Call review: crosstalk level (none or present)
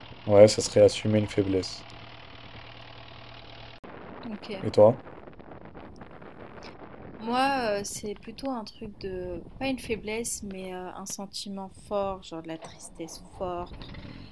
none